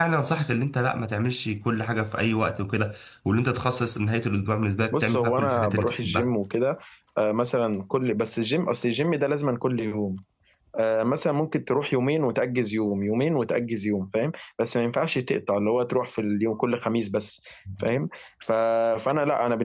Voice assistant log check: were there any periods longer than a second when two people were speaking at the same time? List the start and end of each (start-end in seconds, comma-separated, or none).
4.9-6.3